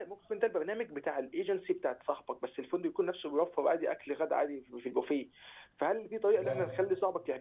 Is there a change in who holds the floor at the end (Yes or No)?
No